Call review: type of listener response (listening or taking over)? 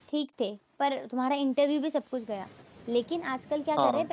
listening